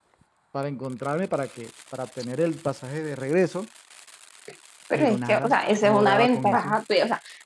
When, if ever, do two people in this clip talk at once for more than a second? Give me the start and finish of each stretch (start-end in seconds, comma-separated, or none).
4.9-6.8